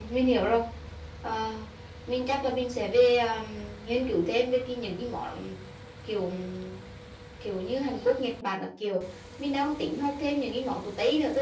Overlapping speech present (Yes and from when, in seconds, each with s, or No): No